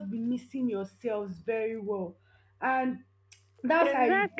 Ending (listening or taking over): taking over